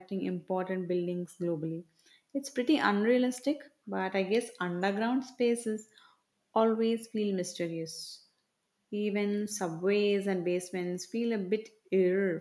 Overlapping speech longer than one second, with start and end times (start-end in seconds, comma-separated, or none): none